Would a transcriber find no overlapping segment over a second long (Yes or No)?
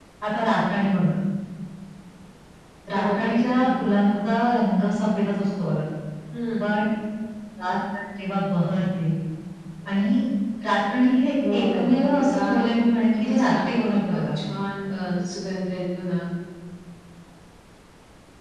No